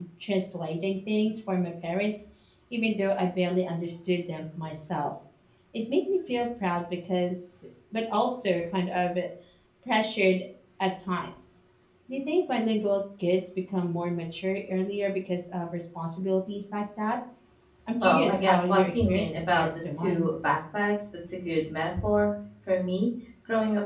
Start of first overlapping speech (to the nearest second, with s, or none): 18 s